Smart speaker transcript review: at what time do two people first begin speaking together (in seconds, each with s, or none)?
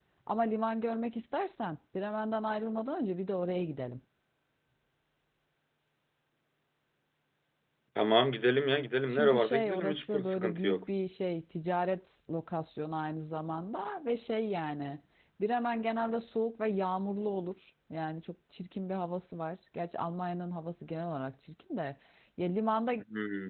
9.1 s